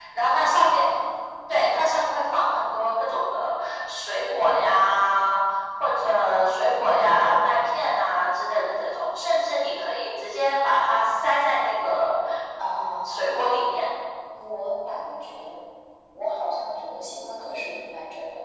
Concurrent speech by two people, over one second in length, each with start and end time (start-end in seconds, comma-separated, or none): 12.6-13.8